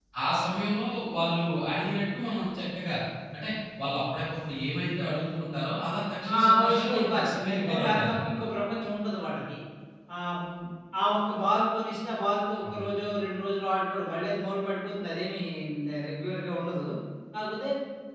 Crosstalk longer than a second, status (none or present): present